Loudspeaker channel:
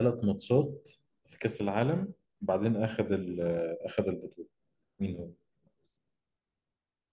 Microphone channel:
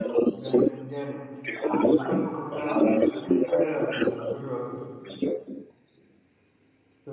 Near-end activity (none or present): present